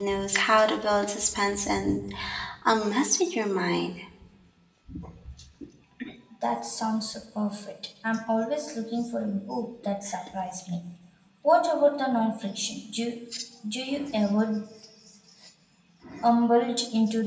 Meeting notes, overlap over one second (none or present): none